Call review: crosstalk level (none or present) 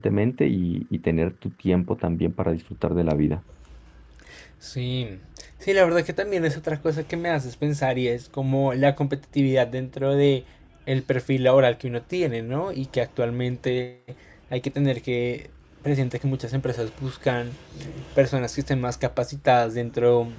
none